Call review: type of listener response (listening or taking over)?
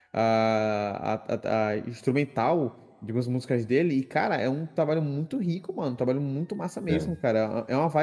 listening